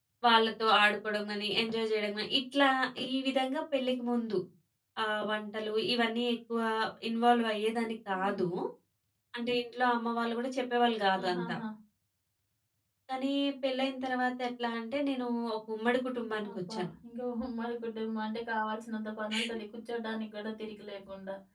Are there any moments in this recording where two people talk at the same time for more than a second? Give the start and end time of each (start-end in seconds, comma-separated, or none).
none